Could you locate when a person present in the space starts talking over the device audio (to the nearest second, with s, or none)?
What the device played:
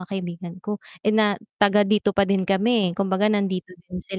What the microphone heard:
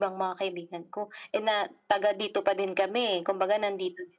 none